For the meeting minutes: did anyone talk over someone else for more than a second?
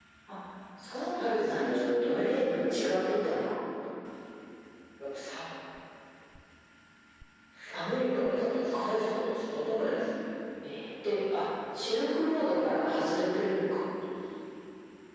Yes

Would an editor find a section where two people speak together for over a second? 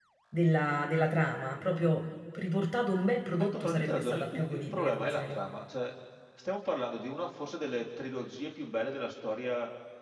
Yes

